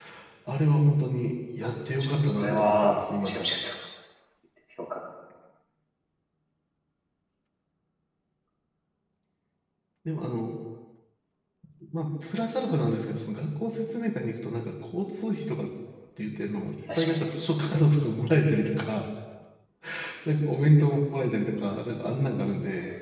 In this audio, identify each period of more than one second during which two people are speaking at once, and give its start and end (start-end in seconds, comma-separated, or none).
2.1-3.5